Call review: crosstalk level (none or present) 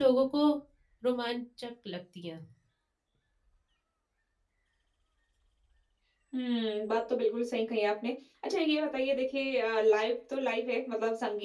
none